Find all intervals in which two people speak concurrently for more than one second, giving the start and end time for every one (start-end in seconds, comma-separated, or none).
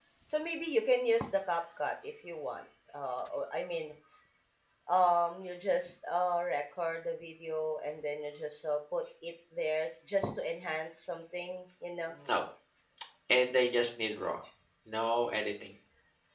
none